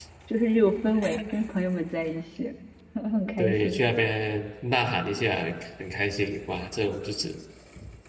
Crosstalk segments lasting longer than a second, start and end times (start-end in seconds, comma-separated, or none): none